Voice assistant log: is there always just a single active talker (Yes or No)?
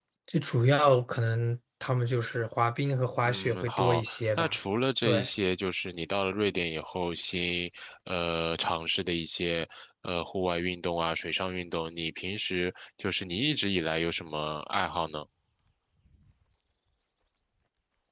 No